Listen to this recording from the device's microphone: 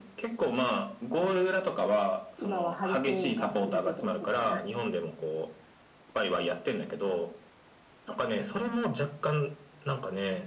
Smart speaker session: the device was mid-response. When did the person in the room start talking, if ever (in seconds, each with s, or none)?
2.4 s